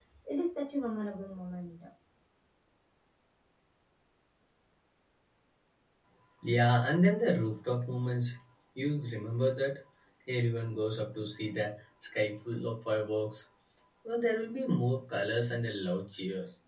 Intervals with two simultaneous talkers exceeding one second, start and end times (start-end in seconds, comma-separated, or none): none